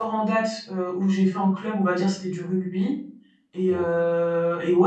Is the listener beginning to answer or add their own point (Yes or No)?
No